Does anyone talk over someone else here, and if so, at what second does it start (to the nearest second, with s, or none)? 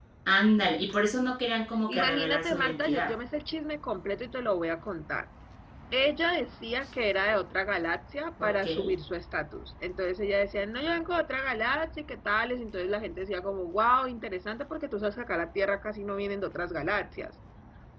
2 s